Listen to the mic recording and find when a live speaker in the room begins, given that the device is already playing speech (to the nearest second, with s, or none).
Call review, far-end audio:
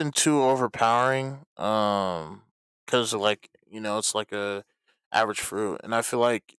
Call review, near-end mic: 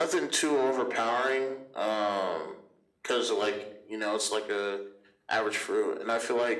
none